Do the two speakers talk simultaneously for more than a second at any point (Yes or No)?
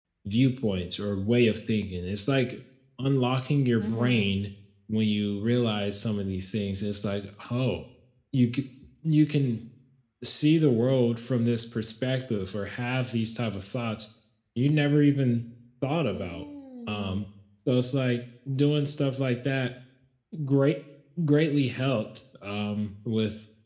No